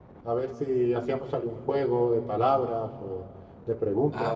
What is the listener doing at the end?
taking over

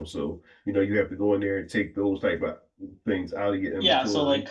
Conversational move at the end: taking over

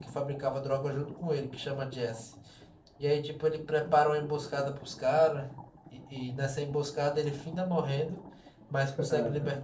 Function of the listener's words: listening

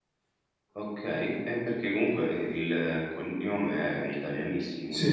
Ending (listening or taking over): taking over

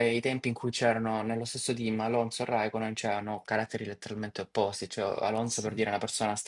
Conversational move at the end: listening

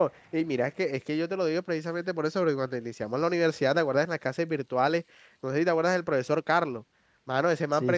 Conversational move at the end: listening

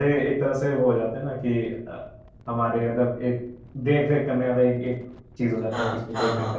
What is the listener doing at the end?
taking over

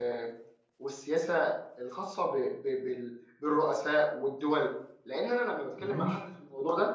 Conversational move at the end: listening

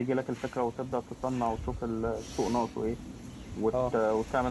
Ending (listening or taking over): listening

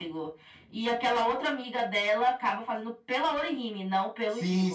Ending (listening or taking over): taking over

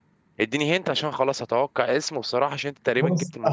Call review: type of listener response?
taking over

